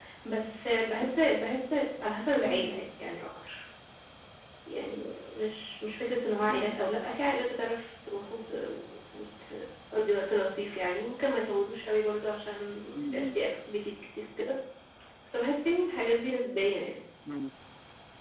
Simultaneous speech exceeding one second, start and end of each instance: none

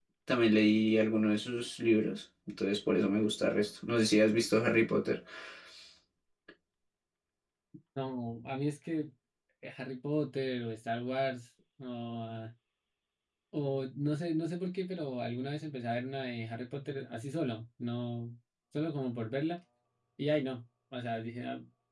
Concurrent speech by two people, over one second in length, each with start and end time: none

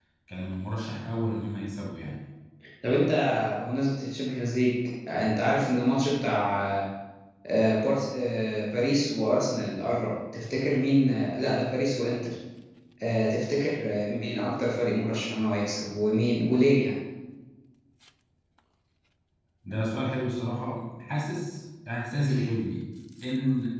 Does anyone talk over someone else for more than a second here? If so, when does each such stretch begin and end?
none

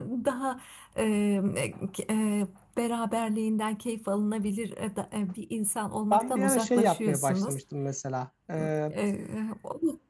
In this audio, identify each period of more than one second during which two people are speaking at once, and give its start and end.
6.1-7.6

